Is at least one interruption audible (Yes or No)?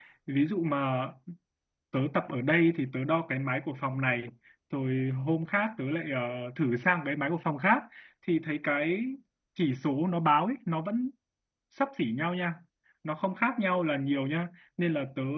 No